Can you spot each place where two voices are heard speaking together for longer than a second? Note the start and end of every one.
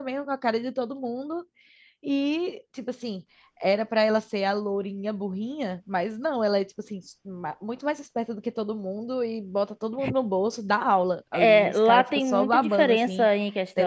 11.3-13.3

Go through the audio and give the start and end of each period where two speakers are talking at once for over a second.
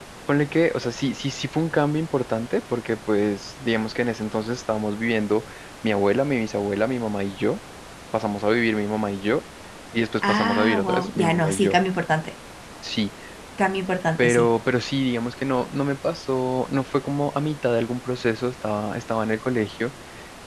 10.3-11.8

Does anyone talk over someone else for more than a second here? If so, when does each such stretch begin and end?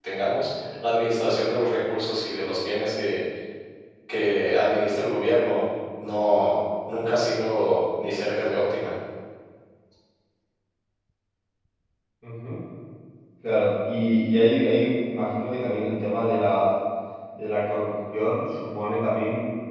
none

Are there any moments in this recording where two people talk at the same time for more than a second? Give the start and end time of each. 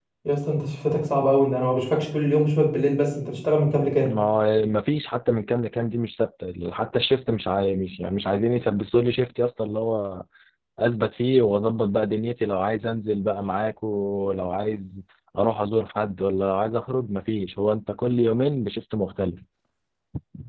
none

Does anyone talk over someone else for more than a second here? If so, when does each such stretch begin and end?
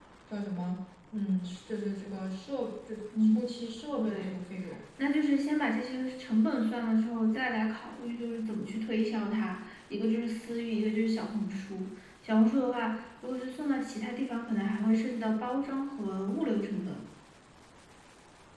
none

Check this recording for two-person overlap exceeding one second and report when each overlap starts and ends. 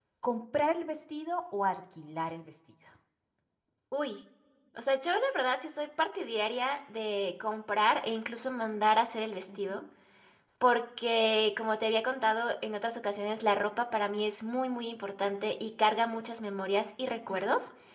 none

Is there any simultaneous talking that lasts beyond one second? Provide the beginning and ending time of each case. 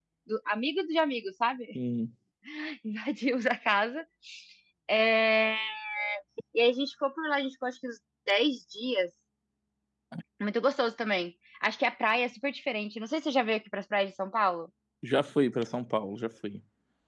none

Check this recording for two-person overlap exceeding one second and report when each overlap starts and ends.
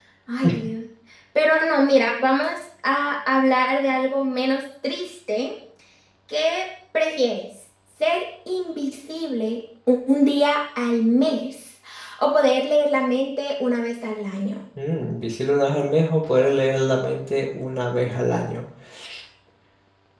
none

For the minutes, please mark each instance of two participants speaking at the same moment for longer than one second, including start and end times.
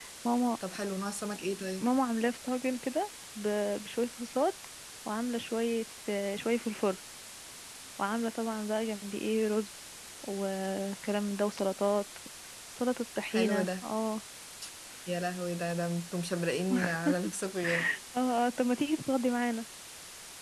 none

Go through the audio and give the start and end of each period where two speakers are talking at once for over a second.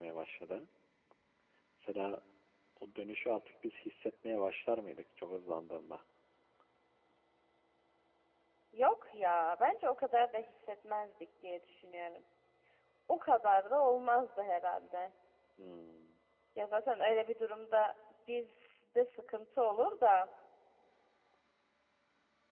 none

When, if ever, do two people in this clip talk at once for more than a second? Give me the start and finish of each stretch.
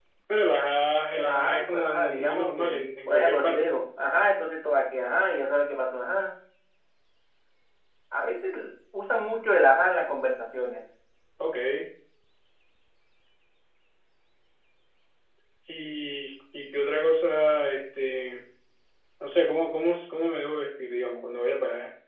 1.1-3.8

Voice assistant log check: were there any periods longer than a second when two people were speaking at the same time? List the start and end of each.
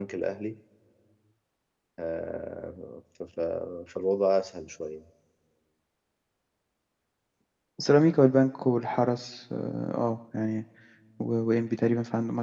none

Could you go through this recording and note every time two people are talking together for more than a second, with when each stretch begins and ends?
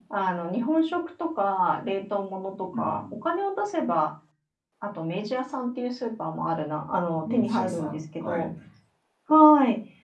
7.2-8.5

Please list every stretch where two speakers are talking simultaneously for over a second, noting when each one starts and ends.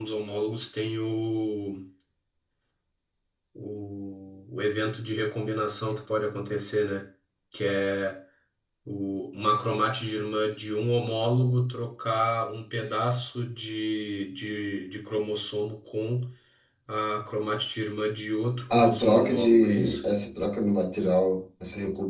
18.7-20.0

